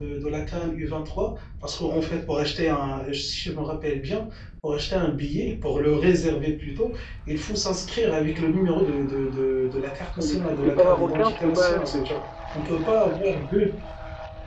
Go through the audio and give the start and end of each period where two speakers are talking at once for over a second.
10.2-12.1

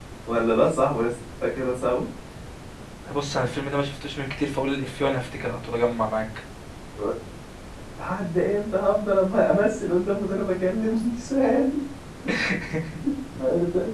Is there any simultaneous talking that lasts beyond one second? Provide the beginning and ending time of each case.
none

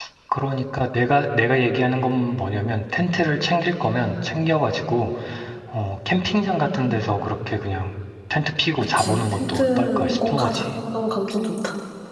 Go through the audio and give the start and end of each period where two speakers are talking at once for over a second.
9.0-10.6

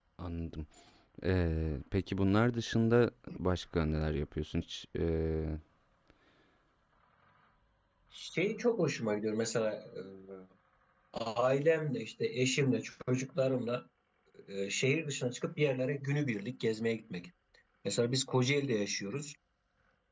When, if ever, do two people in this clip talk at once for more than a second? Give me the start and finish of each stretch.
none

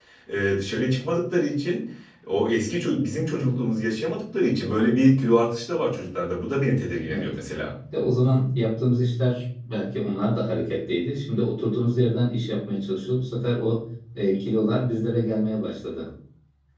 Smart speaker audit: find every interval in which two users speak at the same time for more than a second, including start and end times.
none

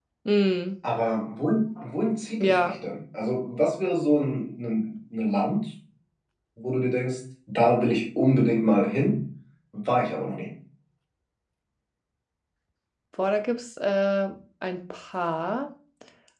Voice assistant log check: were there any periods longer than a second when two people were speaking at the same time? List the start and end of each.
none

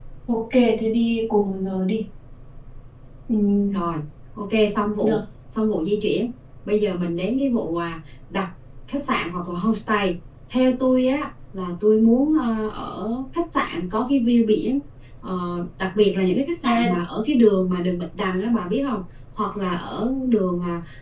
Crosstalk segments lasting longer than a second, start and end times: none

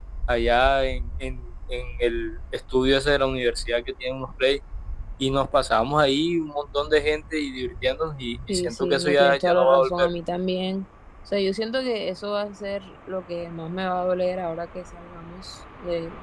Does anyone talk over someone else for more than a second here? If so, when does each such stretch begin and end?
8.5-10.1

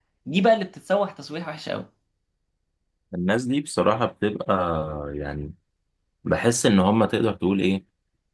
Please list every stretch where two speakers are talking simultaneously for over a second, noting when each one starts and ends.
none

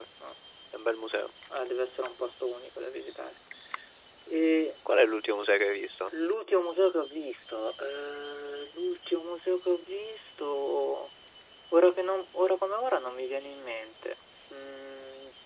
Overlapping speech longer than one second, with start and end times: none

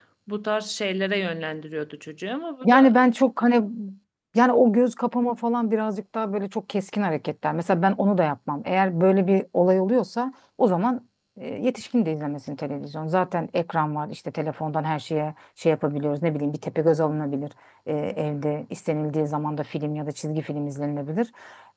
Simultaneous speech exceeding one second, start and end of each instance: none

